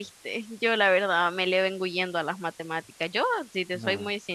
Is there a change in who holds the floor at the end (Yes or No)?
No